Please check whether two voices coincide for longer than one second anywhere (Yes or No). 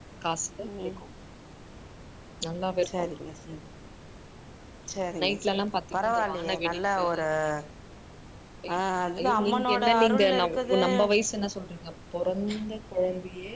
Yes